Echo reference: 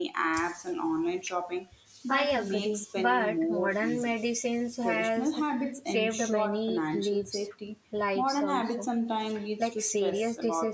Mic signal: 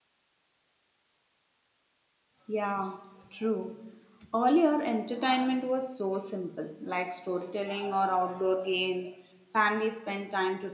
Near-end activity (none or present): present